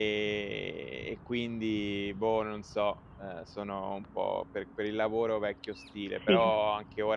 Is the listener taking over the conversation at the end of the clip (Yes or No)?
No